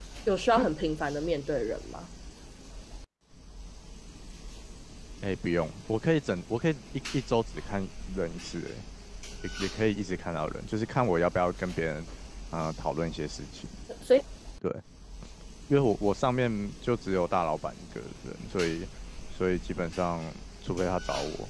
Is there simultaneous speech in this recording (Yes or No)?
No